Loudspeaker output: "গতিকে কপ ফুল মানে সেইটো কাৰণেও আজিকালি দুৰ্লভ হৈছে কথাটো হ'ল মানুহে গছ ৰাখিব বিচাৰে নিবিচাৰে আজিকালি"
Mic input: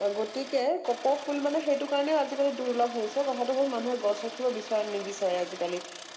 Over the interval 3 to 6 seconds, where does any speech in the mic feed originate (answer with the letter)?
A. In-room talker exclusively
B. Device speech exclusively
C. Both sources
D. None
B